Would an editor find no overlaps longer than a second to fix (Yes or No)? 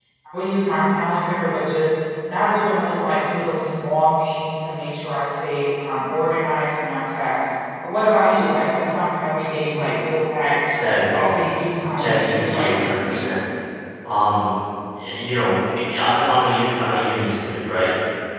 No